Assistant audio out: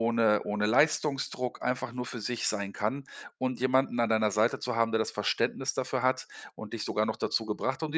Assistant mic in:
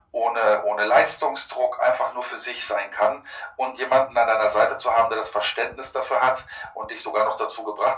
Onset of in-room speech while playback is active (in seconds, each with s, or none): none